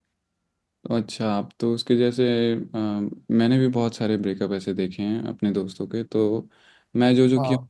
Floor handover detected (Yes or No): No